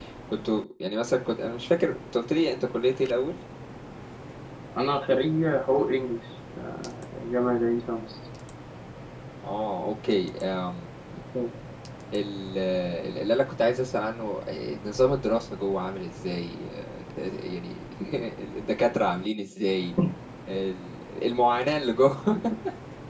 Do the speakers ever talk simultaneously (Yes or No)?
No